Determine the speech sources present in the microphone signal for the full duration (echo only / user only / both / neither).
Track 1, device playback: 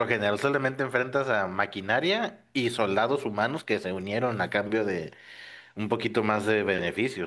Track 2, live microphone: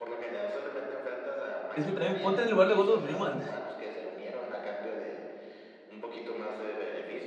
both